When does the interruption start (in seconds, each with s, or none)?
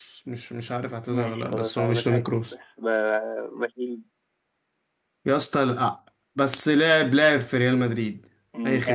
1.1 s